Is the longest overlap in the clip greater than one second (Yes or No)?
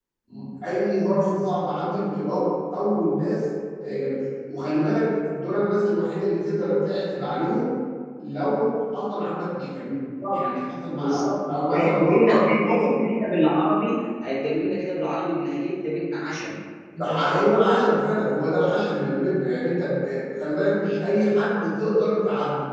Yes